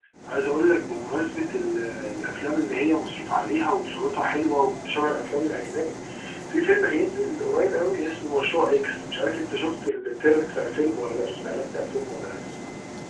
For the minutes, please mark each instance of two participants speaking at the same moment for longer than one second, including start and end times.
none

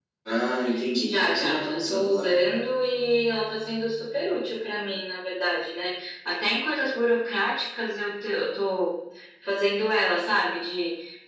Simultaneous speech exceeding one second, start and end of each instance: 1.1-2.4

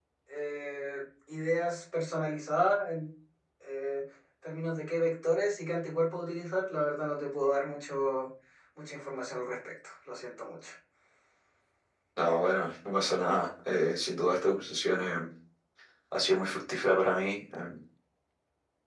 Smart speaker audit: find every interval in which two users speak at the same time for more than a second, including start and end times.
none

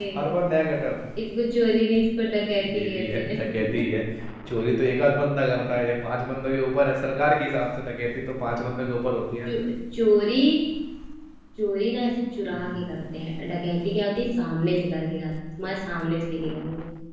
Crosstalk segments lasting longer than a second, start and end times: 2.6-3.8

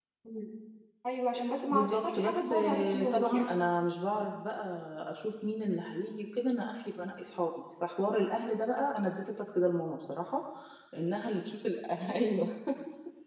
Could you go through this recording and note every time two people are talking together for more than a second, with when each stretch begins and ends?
1.7-3.5

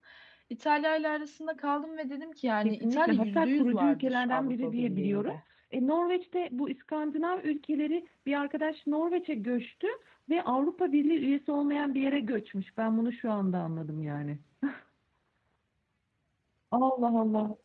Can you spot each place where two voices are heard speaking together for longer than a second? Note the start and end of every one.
2.6-5.4

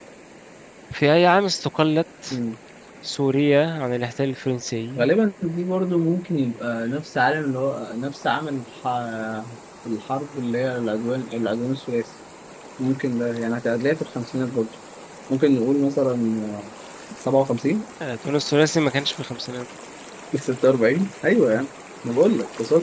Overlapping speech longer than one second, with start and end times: none

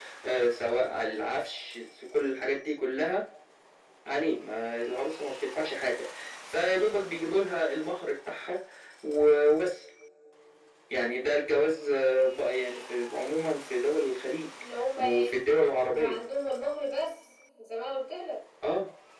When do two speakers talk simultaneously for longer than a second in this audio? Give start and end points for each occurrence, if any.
none

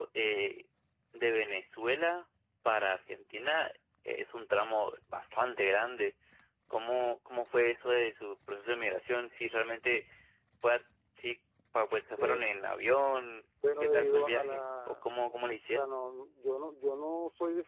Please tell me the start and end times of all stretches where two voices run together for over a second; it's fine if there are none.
13.8-15.1

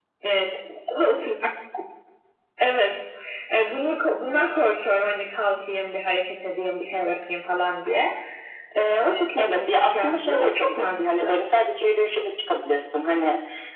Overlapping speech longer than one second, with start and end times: 9.4-11.4

